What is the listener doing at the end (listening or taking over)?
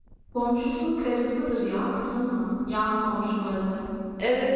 taking over